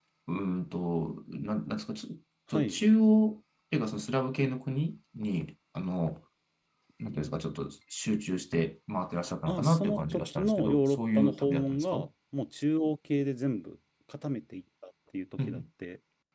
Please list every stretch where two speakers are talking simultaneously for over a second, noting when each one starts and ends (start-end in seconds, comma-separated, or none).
9.5-12.1